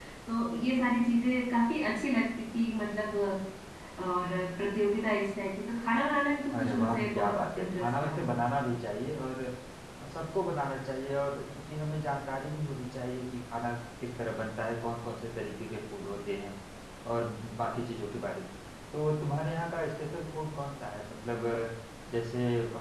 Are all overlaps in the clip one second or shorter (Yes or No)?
No